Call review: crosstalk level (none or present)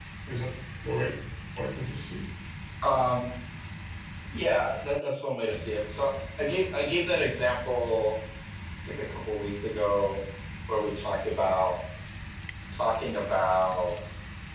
none